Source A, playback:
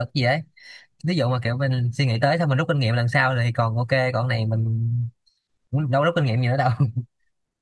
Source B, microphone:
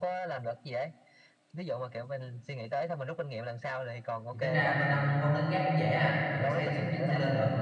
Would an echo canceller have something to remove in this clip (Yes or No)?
Yes